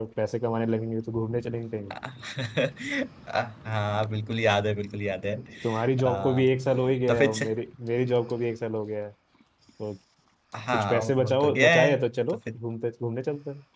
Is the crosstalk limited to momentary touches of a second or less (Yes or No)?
No